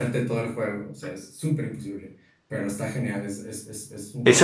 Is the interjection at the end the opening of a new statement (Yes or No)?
Yes